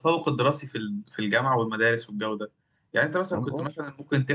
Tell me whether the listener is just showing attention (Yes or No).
Yes